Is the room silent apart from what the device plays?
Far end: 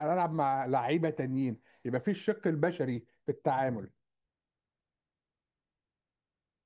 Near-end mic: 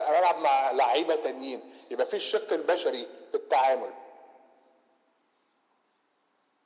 Yes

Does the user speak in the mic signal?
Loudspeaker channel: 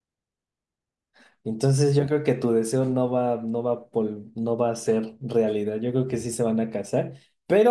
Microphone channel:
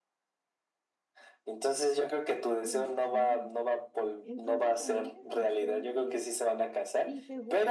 Yes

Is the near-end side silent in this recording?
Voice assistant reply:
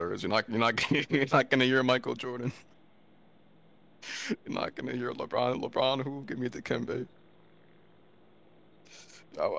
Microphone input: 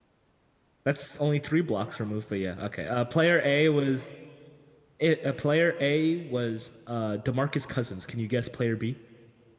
No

